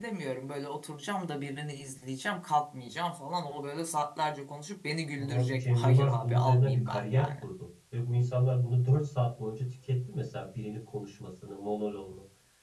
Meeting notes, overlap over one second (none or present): present